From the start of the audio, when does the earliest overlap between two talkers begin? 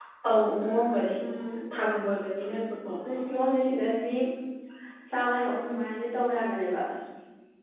none

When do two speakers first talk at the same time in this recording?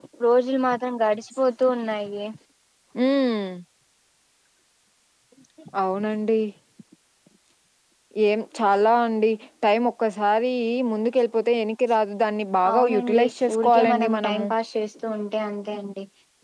12.6 s

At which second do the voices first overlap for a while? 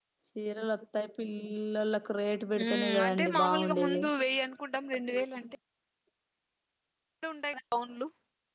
2.6 s

